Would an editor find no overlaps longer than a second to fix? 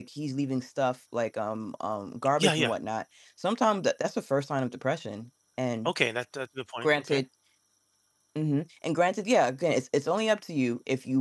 Yes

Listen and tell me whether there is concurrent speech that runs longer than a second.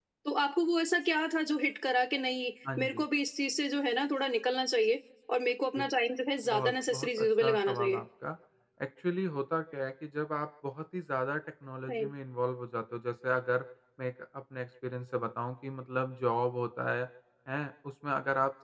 Yes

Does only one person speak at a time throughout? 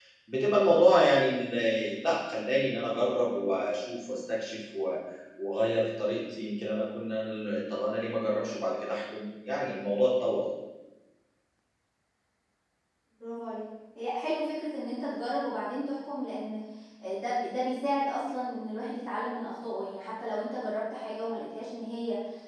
Yes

